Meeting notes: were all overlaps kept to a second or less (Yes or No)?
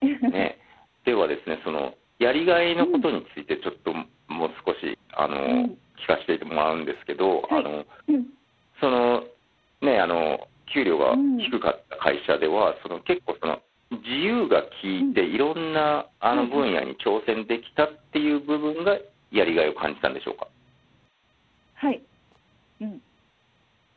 Yes